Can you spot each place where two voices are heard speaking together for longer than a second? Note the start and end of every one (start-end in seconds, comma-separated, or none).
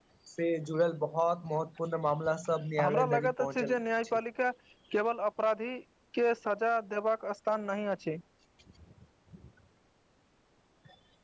2.8-4.2